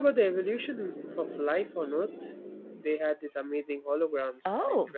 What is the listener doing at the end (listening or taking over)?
taking over